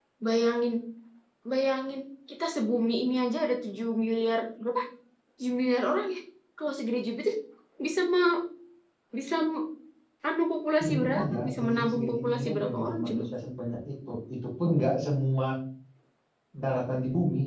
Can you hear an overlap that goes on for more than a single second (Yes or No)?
Yes